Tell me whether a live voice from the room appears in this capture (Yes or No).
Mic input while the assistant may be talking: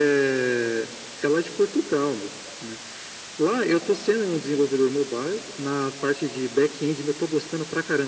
No